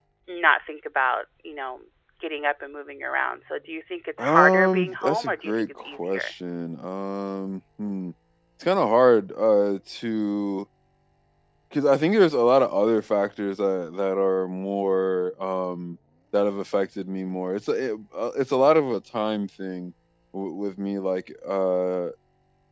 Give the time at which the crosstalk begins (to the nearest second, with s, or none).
4 s